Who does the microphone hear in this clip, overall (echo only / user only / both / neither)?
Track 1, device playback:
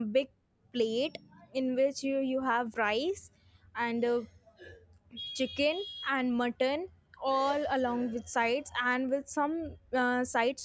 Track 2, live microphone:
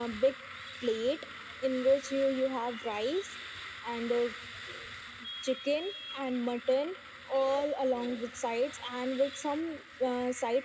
echo only